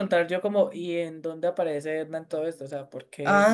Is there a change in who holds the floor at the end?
Yes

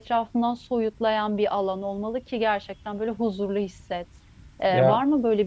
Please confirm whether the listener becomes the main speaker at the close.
No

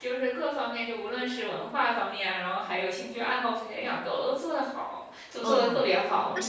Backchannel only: No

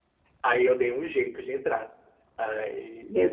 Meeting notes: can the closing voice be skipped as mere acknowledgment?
Yes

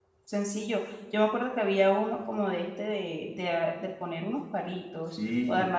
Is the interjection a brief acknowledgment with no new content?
No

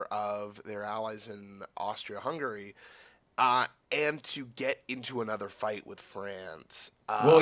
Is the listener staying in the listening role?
No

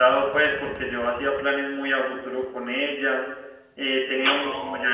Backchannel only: Yes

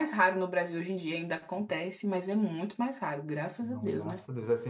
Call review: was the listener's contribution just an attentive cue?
No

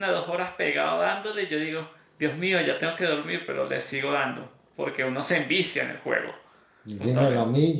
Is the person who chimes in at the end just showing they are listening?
No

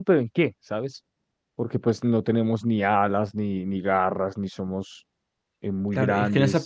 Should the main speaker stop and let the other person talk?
Yes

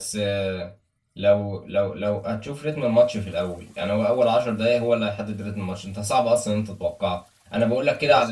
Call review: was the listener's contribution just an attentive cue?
Yes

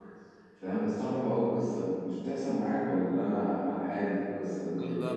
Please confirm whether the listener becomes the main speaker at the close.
Yes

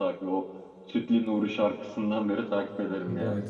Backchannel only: No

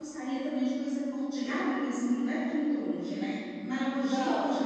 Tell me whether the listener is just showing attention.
Yes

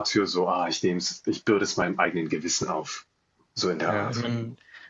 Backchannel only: No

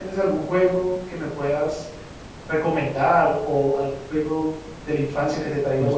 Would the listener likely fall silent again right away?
No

